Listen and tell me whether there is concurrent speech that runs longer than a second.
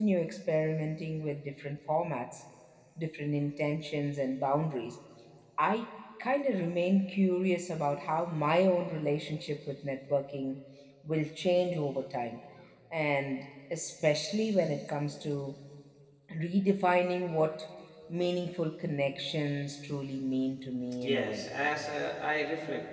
No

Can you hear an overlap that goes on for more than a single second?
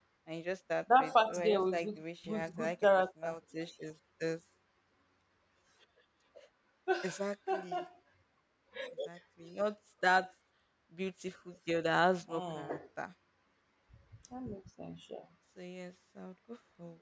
Yes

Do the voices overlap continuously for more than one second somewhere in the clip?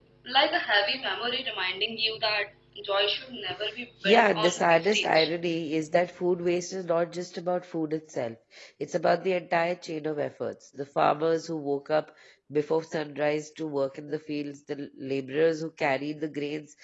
Yes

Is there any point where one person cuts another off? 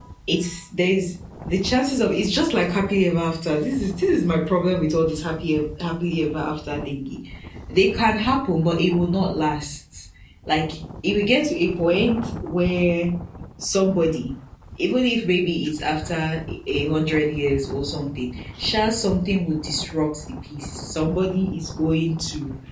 No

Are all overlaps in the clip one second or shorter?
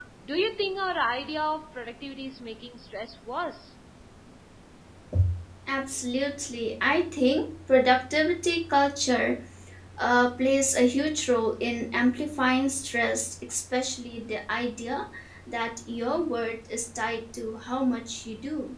Yes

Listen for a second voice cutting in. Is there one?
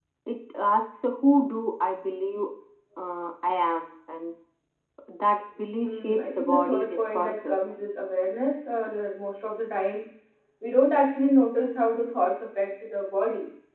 Yes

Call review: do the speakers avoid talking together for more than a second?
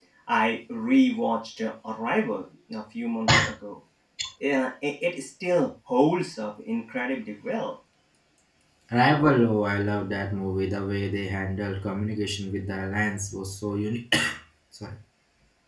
Yes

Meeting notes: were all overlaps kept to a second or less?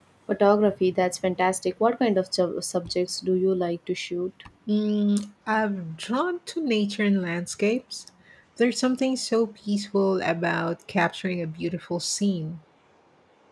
Yes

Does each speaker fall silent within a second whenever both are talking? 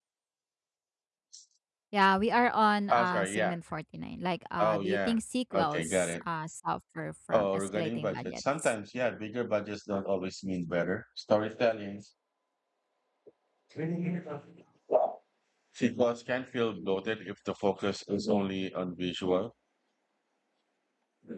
No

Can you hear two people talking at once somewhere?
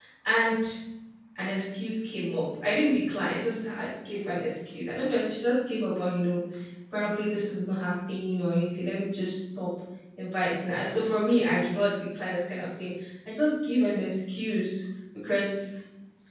No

